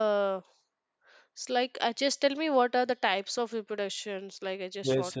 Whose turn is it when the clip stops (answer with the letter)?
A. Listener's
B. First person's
A